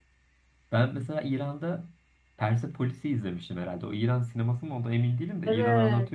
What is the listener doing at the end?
taking over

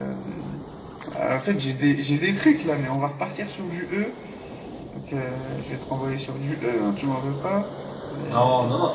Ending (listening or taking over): taking over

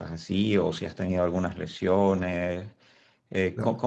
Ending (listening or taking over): listening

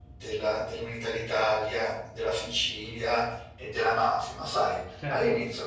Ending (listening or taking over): listening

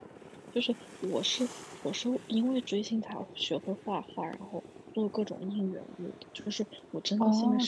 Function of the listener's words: taking over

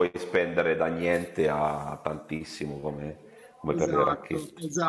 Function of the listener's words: taking over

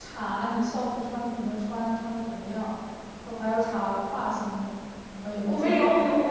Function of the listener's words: taking over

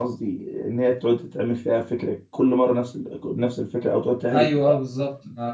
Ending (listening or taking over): taking over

